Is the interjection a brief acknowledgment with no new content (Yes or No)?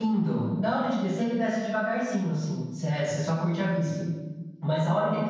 Yes